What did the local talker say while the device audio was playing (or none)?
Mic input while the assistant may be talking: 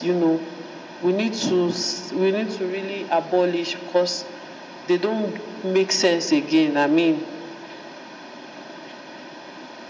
none